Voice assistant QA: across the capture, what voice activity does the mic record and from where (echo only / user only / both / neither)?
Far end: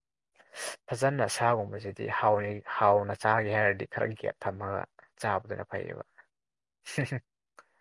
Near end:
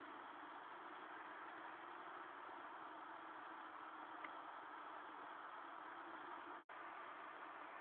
neither